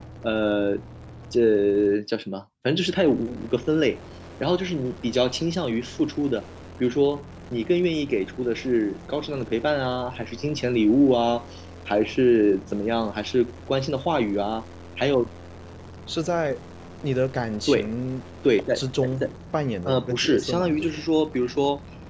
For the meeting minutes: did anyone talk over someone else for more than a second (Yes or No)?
Yes